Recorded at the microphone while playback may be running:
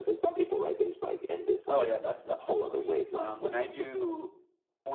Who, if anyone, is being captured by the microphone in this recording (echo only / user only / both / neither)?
both